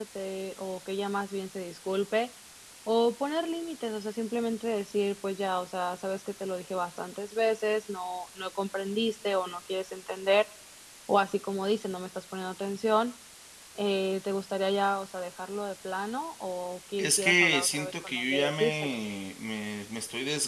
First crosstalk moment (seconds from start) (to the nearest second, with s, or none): 17 s